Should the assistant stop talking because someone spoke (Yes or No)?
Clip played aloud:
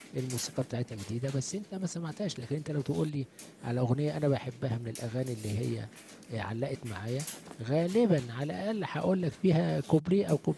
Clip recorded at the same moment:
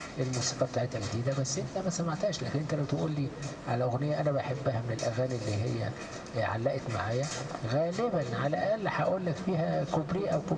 No